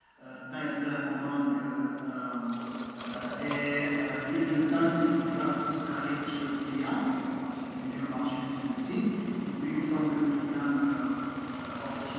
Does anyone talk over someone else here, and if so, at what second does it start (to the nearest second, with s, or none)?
none